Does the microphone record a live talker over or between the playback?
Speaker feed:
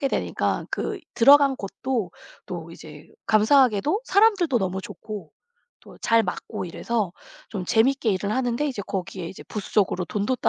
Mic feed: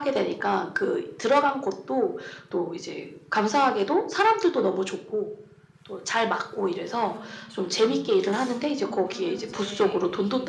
Yes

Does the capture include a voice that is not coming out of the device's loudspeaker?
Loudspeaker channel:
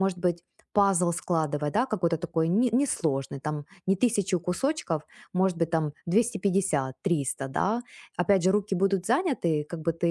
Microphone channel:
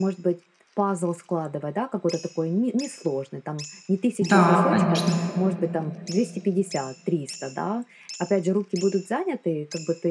Yes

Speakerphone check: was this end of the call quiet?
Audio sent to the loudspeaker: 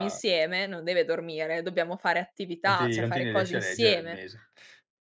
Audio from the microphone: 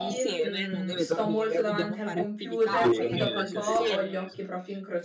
No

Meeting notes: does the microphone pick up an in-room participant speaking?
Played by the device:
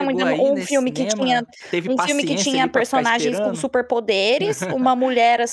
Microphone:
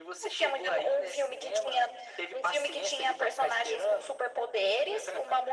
No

